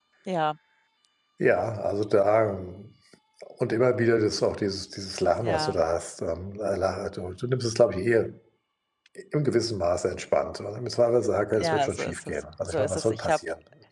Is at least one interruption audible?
Yes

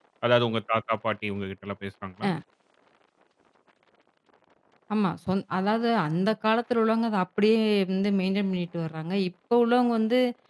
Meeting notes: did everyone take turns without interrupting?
Yes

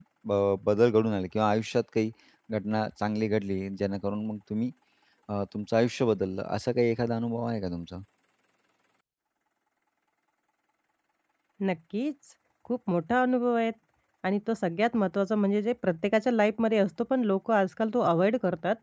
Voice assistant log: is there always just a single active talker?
Yes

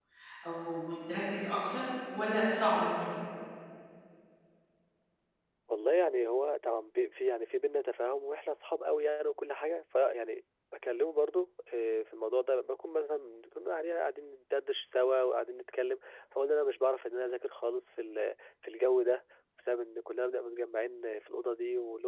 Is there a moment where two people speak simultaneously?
No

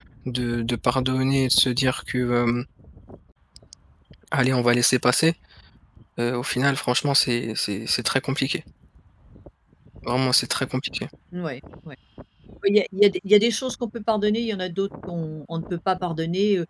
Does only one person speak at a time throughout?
Yes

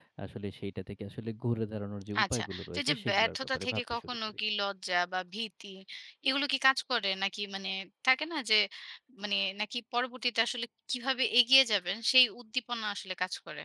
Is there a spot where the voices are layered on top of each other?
Yes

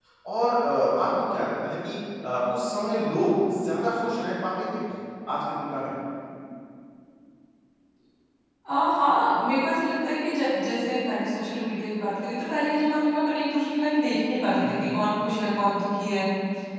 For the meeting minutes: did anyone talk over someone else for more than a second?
No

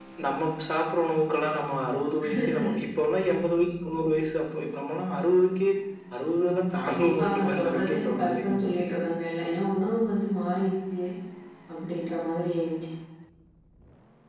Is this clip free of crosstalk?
No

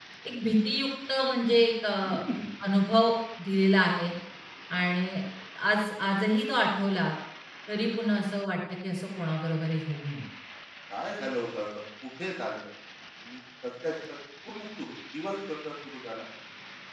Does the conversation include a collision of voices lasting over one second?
No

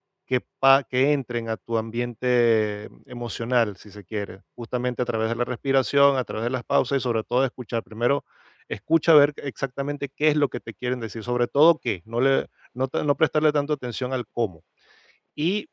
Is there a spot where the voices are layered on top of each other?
No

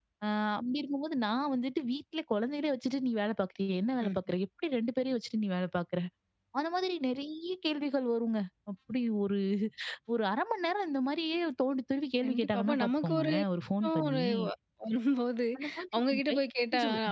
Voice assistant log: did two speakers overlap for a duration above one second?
Yes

